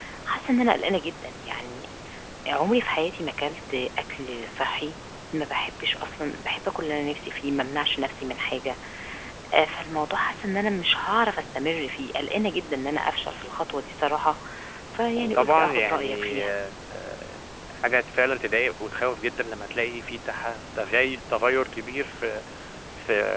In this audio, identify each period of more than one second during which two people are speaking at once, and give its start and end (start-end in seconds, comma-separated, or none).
15.2-16.4